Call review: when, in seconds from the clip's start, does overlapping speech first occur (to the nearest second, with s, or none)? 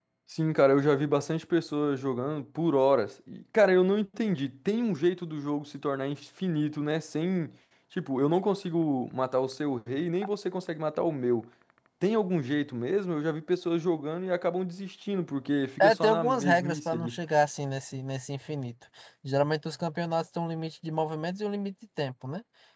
16 s